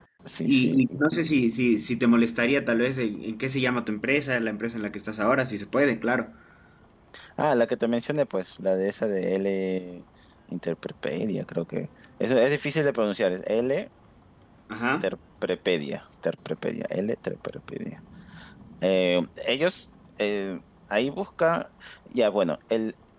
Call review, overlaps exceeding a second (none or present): none